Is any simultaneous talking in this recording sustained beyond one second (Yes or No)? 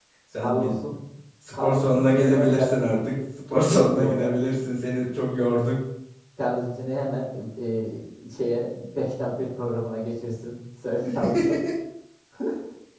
Yes